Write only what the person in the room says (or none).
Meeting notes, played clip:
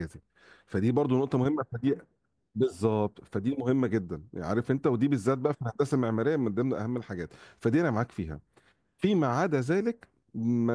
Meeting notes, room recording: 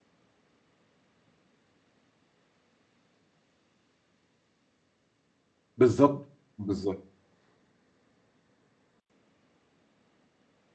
بالظبط بالظبط